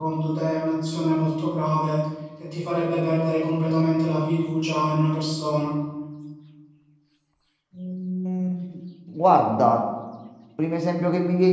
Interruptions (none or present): none